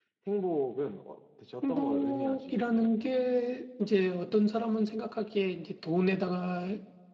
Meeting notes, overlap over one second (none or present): present